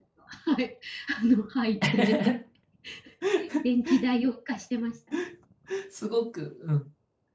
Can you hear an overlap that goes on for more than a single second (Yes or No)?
No